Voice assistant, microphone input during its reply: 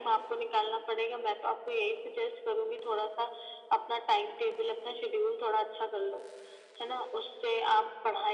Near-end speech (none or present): none